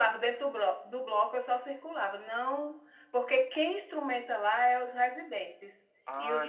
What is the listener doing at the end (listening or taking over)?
taking over